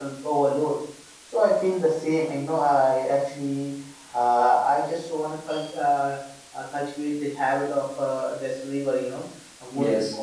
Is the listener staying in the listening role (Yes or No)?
Yes